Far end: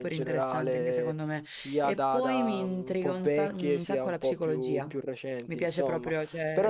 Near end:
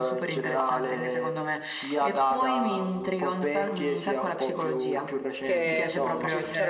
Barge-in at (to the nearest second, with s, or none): 5 s